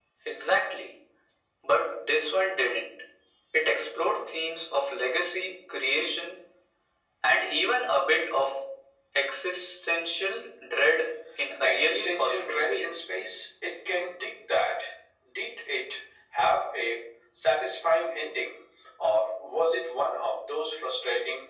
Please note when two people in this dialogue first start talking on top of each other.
11.6 s

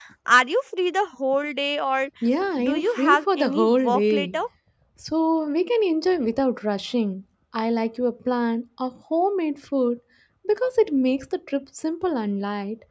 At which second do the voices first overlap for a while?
2.6 s

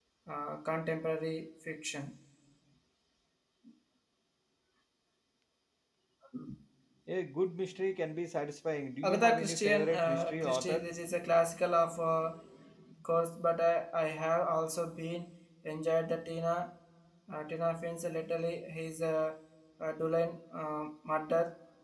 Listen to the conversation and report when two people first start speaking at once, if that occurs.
9.0 s

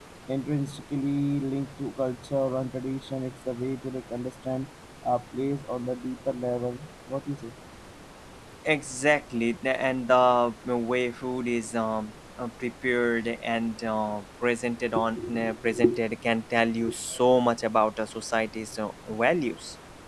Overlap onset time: none

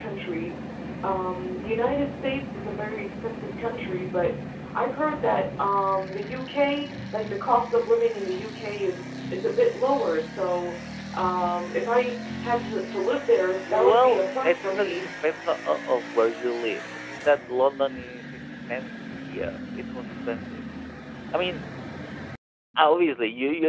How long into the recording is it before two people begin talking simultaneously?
13.7 s

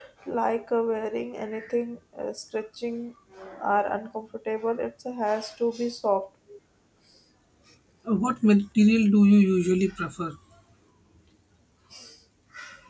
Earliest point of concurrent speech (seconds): none

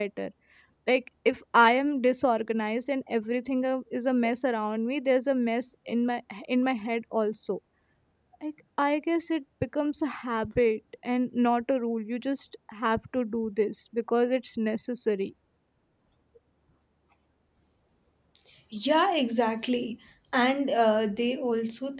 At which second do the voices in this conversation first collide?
none

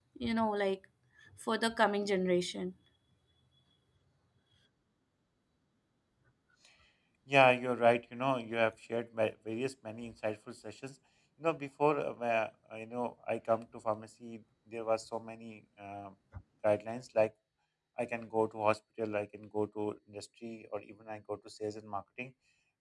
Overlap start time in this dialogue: none

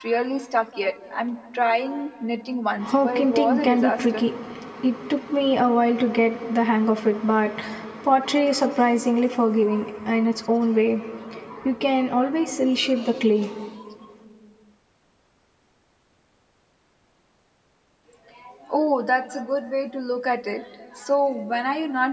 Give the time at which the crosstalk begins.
2.8 s

